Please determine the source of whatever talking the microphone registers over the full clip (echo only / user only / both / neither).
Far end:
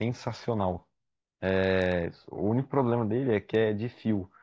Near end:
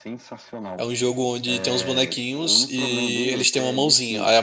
both